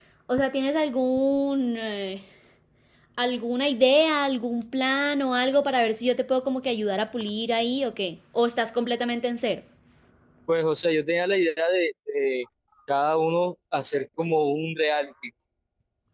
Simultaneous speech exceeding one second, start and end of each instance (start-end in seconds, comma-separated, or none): none